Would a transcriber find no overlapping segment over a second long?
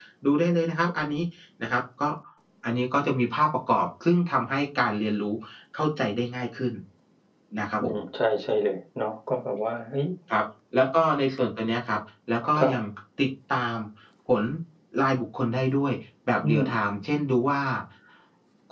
Yes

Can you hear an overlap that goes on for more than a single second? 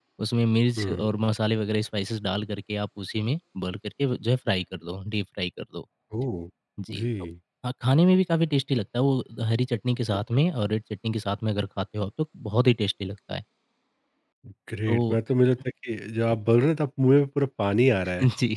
No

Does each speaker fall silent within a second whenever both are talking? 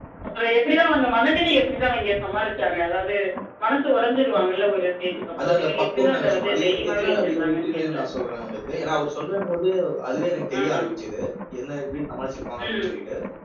No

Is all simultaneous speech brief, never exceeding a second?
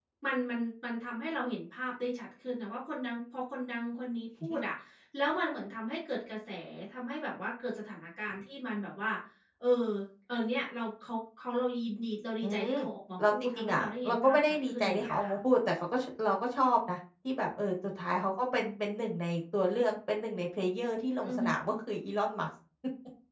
No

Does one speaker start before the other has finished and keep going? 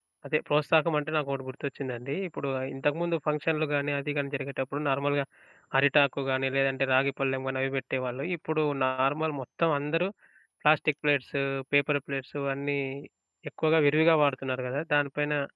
No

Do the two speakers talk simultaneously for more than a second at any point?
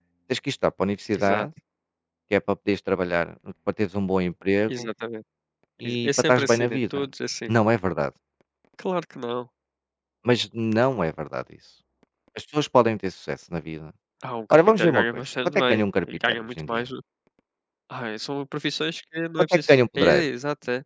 Yes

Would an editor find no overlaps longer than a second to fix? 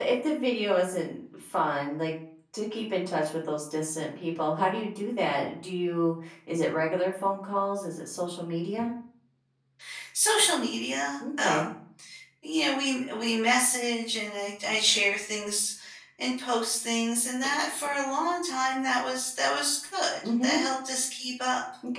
Yes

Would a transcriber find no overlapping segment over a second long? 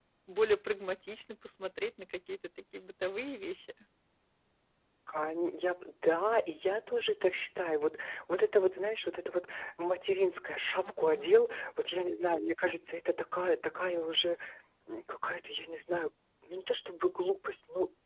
Yes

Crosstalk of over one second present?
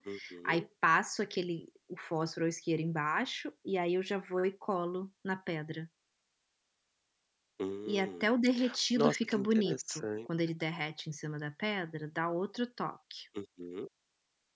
Yes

